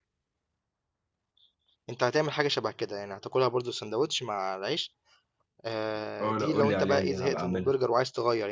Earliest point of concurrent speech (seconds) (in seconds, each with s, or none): 6.2 s